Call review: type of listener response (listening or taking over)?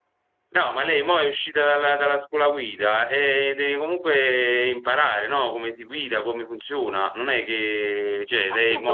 taking over